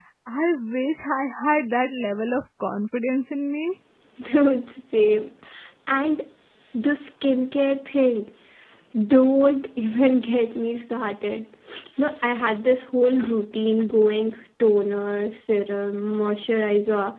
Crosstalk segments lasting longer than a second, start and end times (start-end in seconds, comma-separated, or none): none